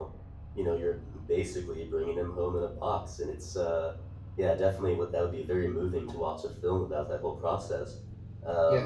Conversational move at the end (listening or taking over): taking over